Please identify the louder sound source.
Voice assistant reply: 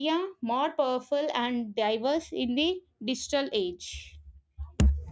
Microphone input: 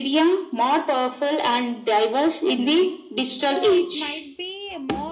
echo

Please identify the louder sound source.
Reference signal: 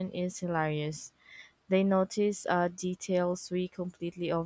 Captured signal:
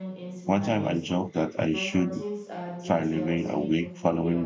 user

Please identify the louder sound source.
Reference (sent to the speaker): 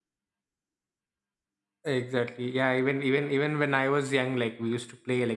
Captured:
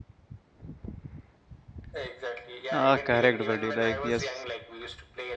user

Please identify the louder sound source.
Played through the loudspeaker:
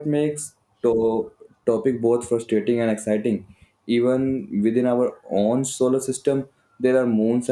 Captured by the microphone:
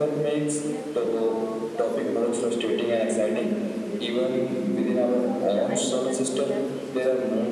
echo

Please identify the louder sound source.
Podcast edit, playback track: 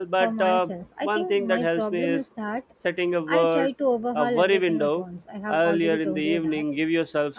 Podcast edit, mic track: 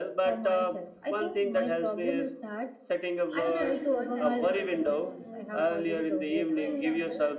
echo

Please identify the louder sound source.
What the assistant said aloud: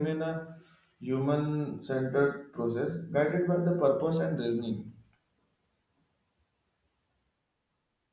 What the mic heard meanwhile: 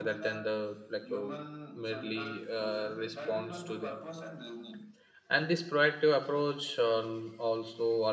user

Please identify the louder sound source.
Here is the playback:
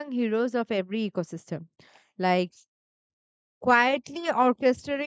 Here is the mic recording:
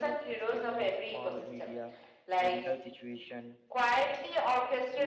echo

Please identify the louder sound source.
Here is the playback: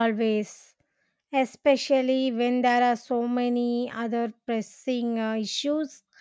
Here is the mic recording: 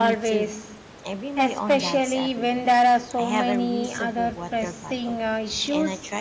echo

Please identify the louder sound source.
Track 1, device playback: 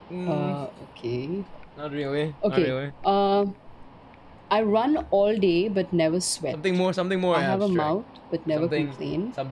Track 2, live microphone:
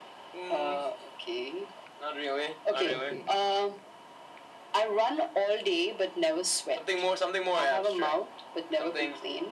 echo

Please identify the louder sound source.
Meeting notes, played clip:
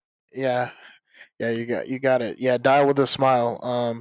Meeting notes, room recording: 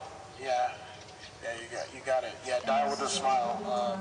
echo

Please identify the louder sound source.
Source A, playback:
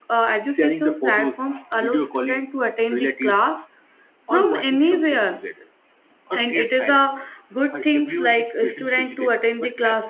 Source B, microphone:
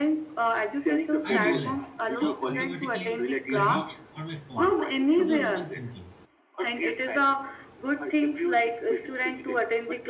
echo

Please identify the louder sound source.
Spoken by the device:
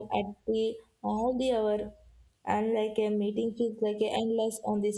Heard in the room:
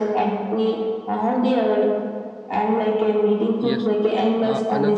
echo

